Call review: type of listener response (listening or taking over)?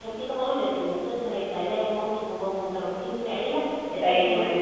taking over